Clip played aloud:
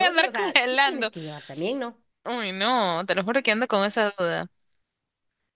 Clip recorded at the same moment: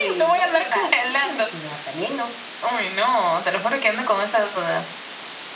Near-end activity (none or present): none